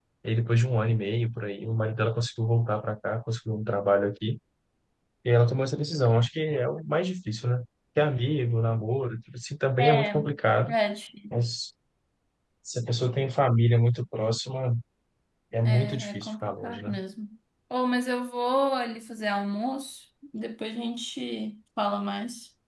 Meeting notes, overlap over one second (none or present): present